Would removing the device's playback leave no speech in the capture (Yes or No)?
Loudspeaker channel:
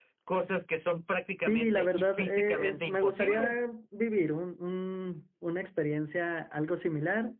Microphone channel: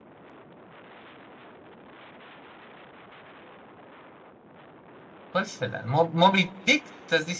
No